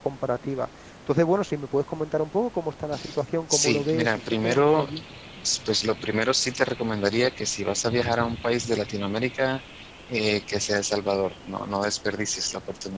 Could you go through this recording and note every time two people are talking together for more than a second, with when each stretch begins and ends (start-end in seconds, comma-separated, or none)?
3.5-4.8